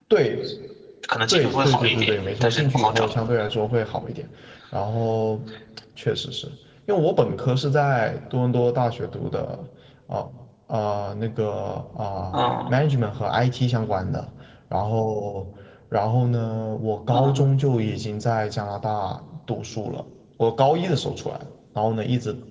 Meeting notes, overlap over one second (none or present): present